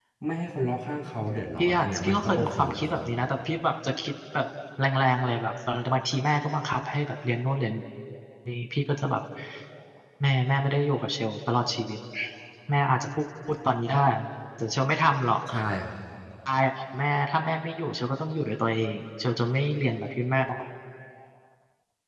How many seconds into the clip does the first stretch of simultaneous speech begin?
2 s

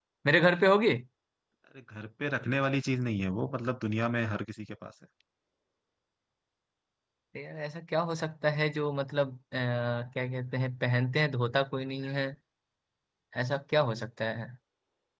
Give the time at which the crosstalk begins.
none

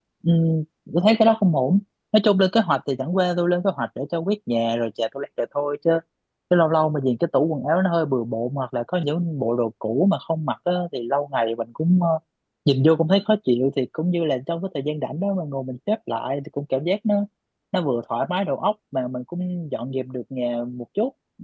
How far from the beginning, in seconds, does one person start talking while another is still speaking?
none

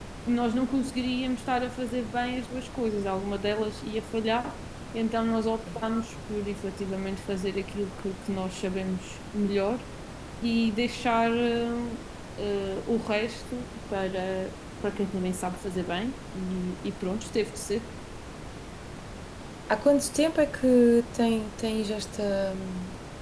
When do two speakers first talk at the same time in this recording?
none

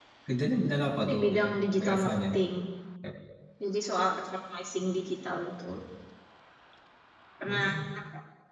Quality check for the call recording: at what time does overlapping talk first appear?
1 s

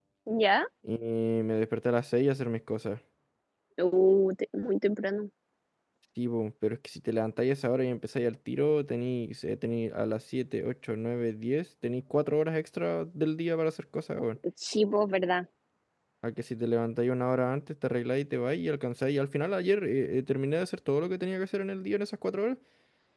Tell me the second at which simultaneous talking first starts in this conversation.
none

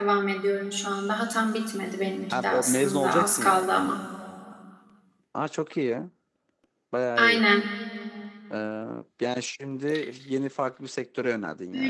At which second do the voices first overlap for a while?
2 s

